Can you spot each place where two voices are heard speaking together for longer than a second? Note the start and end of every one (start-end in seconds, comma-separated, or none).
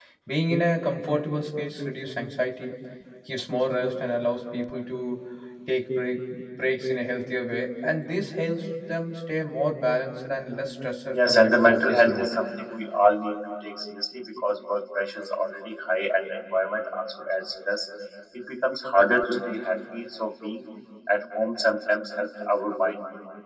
11.1-12.4